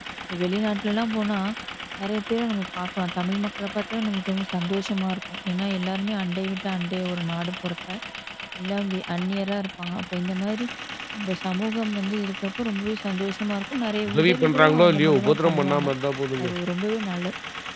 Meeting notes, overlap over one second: present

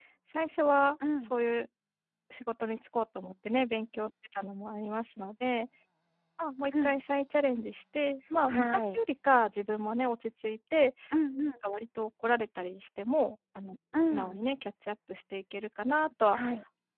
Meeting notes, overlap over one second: none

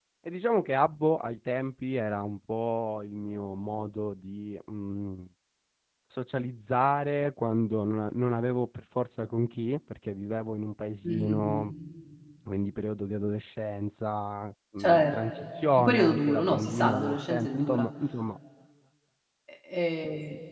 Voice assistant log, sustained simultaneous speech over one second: present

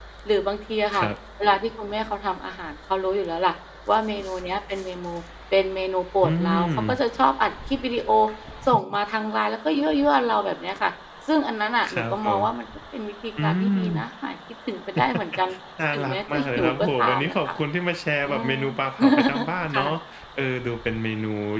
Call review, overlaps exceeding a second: present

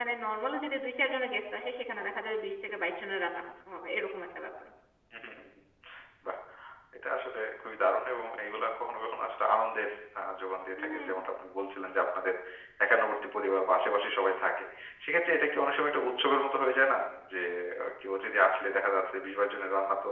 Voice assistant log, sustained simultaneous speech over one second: none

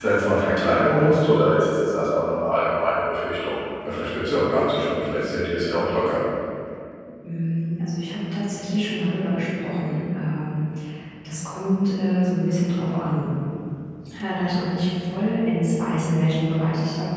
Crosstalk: none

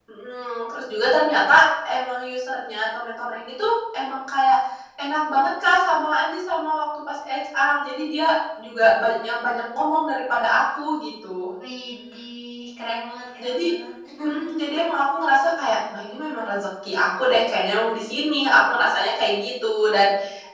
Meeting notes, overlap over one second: none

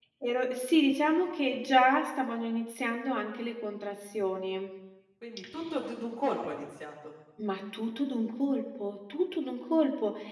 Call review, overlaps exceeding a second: none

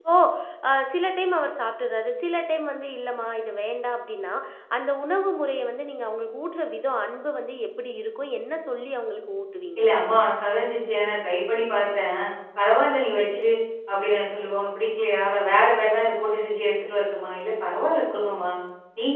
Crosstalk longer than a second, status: none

